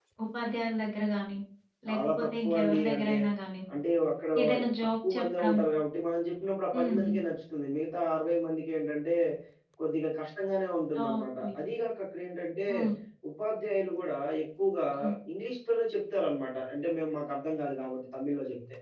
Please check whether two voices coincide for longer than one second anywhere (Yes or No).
Yes